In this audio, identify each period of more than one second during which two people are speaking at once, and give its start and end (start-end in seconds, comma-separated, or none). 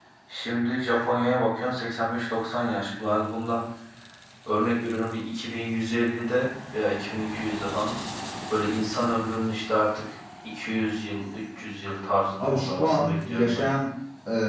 12.4-13.6